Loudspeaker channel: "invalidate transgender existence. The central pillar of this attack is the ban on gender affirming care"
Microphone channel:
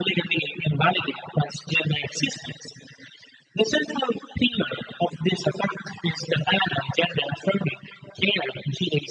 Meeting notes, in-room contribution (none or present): none